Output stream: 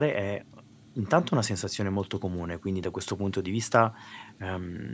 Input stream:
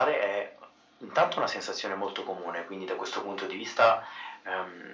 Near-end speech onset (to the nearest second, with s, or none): none